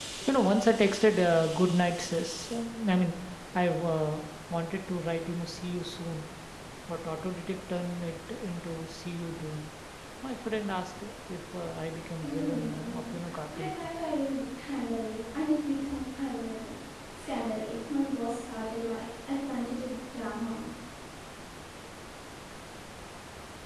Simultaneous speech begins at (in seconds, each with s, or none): 12.2 s